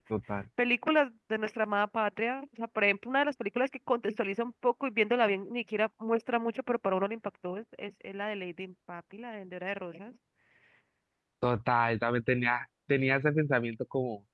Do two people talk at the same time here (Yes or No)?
No